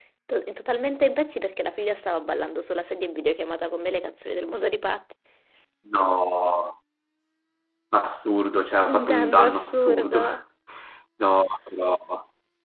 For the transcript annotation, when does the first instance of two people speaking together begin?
9 s

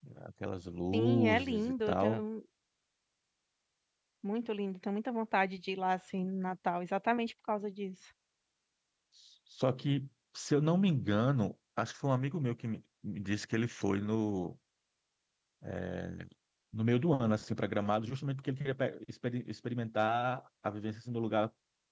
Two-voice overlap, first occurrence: 1 s

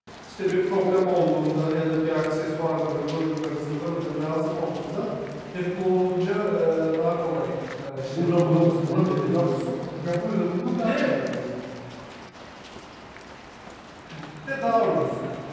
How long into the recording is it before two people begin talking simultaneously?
8 s

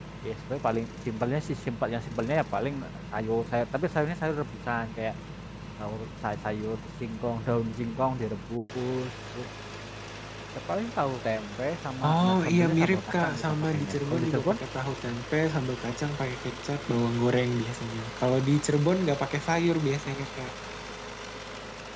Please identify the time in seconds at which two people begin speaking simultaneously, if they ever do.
12 s

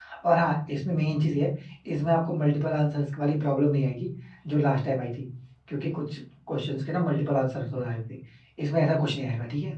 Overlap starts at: none

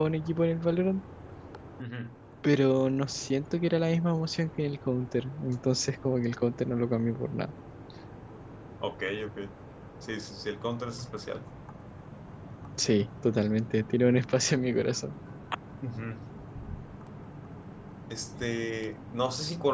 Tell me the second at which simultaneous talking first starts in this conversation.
none

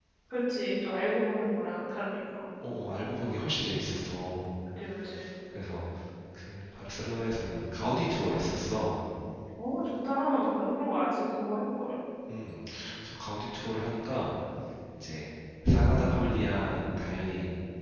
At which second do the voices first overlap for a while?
none

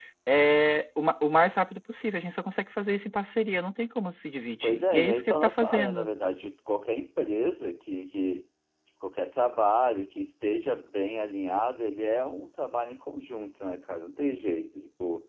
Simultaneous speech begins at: 5 s

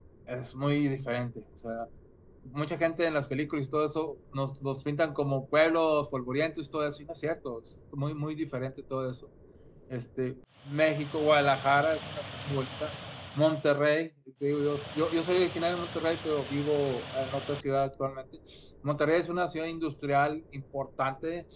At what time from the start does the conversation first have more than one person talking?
none

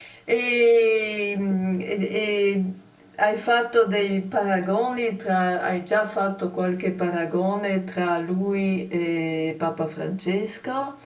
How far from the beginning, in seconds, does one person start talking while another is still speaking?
none

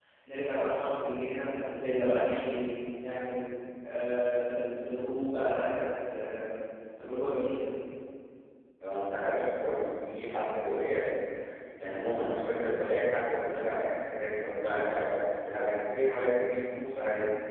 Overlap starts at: none

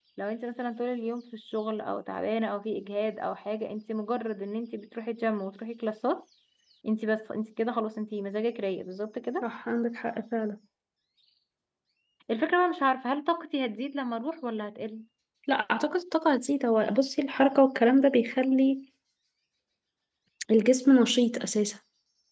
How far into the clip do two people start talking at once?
none

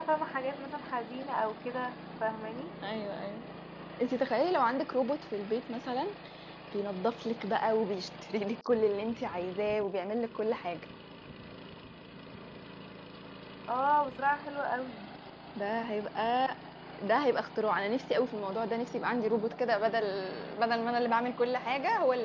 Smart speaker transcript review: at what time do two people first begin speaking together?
none

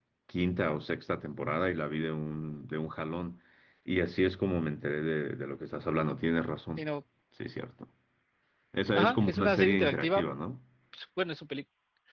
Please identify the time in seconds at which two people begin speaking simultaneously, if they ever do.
9 s

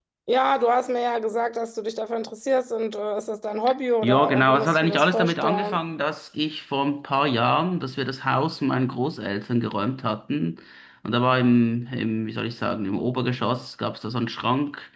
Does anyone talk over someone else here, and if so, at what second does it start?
4 s

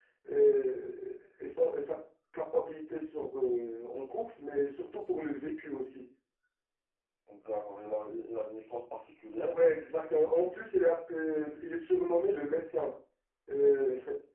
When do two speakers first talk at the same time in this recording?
none

